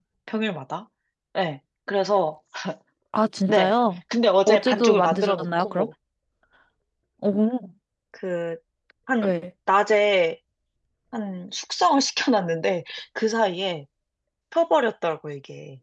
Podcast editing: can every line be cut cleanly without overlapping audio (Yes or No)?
No